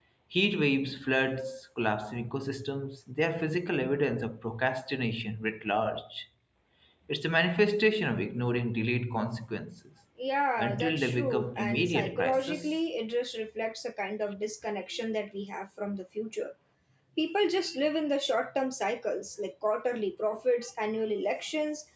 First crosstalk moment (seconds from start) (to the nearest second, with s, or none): 11 s